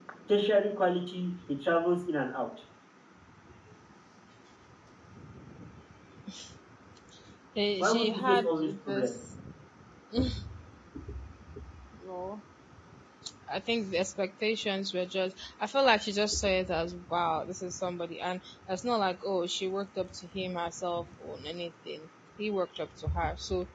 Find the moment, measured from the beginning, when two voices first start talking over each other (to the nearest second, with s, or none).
8 s